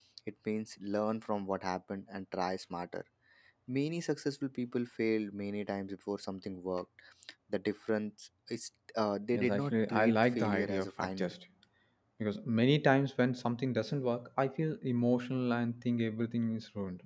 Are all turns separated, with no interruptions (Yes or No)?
No